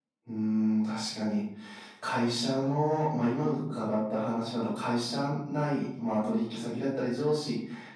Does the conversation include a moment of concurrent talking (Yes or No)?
No